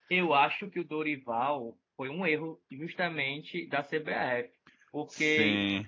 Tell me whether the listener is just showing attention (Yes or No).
Yes